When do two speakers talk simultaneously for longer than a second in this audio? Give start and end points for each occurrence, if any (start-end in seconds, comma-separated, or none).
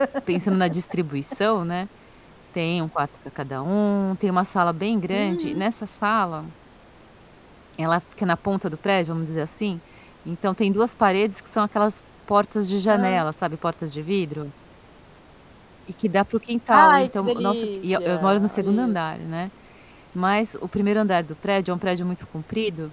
16.7-19.0